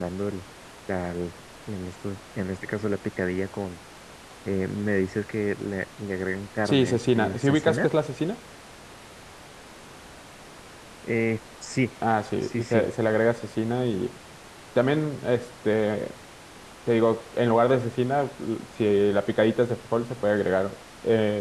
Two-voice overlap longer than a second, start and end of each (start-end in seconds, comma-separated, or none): 6.7-7.9